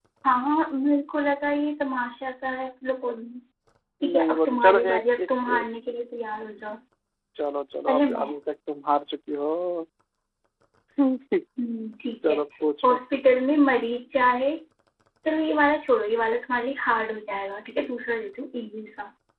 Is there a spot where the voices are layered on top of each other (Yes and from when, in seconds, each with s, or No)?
Yes, from 4.1 s